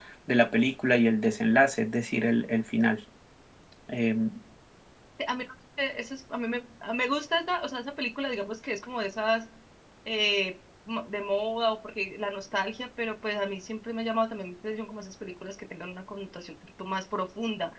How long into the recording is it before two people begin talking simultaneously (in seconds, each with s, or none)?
none